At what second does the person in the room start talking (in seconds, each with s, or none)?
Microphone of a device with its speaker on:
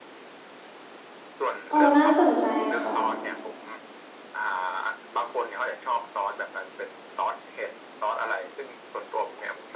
1.7 s